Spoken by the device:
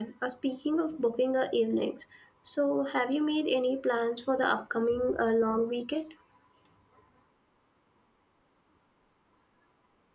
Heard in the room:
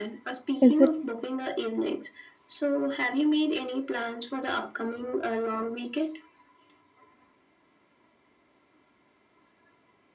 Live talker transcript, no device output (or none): is it